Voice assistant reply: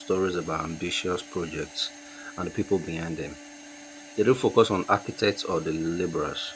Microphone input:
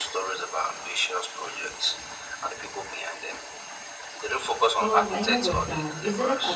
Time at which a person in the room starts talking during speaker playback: 4.8 s

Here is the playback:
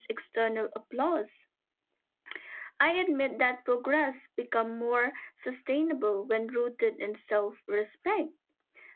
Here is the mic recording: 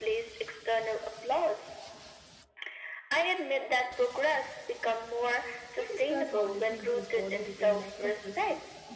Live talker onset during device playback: 5.8 s

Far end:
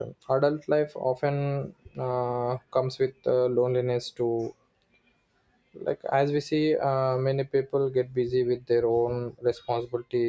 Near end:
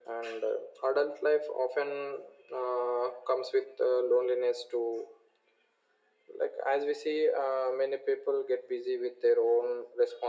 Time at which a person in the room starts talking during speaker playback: none

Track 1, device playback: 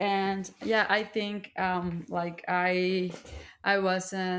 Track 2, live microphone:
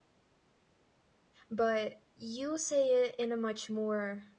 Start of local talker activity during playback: 1.5 s

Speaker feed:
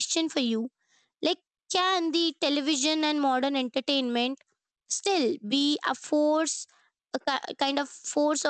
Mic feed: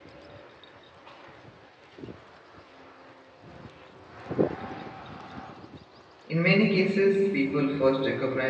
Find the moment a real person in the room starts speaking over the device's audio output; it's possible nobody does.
6.3 s

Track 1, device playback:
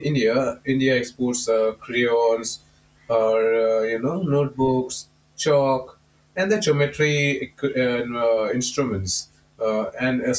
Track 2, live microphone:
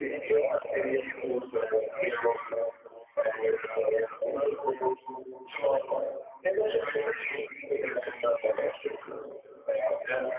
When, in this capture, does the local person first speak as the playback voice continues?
none

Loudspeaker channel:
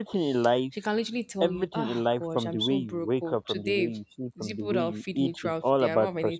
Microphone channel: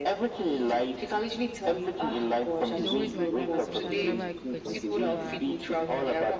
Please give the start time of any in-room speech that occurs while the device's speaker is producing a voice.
2.7 s

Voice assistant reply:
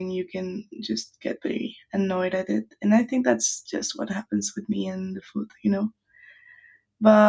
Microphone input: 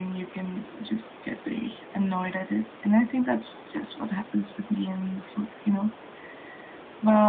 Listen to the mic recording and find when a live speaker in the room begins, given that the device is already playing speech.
none

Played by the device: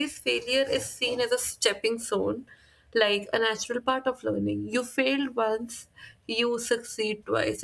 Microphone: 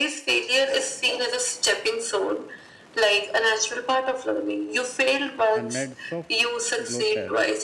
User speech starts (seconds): 5.5 s

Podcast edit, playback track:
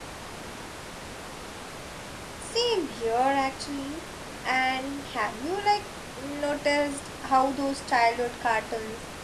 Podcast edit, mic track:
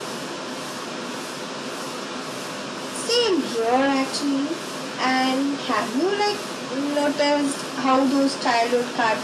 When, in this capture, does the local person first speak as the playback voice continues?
none

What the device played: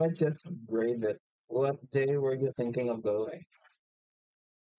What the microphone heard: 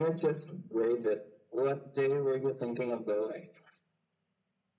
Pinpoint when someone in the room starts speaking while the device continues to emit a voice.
none

